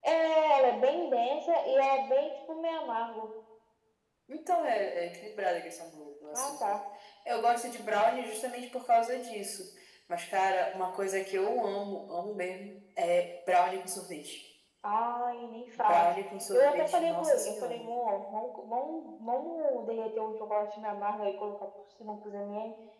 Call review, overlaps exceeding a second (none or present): present